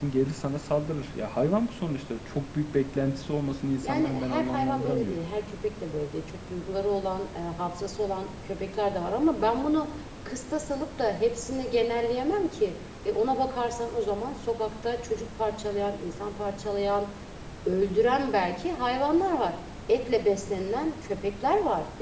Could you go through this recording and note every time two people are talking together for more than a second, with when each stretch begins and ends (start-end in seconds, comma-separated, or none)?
3.8-5.2